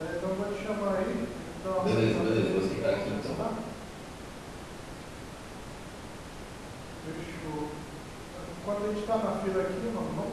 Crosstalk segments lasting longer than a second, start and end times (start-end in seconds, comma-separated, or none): 1.8-3.4